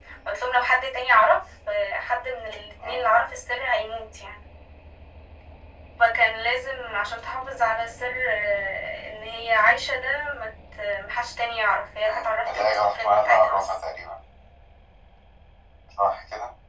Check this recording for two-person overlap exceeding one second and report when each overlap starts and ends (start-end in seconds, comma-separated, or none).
12.1-13.6